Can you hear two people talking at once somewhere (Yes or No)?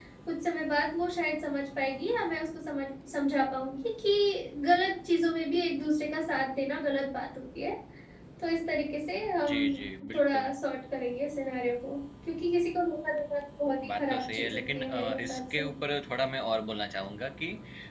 Yes